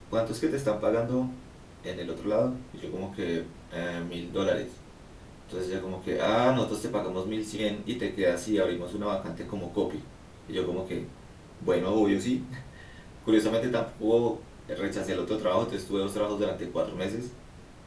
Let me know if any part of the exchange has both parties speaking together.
No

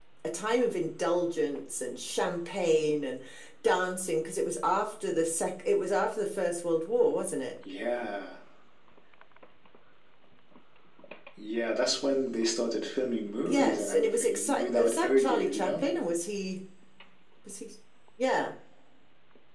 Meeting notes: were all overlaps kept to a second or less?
No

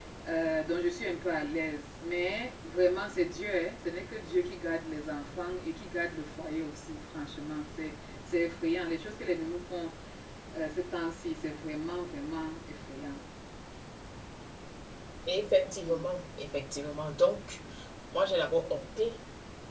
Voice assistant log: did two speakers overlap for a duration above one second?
No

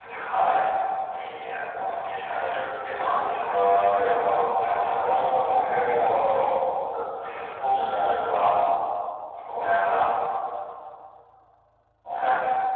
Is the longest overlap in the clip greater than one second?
Yes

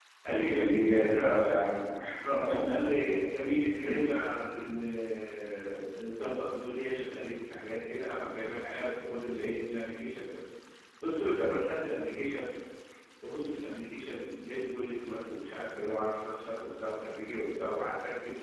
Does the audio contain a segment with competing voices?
Yes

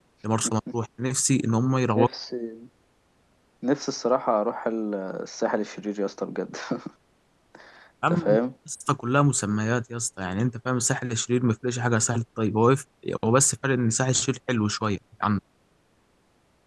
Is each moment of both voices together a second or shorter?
Yes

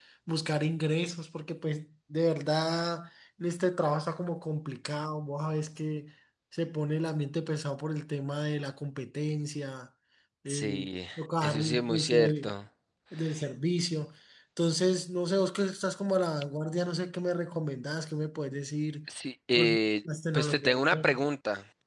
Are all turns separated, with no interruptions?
No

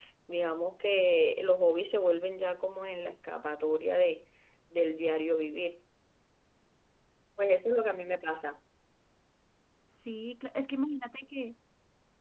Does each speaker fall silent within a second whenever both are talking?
Yes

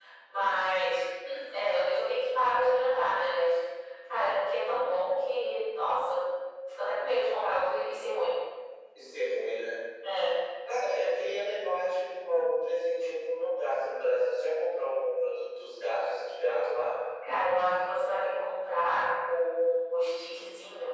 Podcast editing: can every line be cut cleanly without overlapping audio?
Yes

